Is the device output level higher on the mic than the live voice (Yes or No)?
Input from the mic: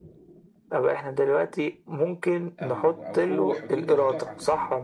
Yes